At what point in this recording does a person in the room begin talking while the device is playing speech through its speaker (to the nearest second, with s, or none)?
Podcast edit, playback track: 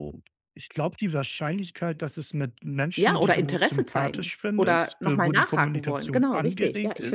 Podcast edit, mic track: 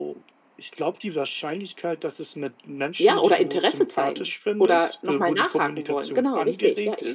none